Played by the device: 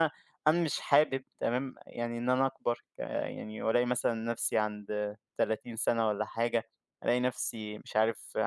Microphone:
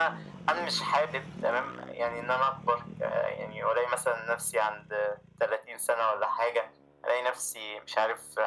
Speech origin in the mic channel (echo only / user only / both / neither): echo only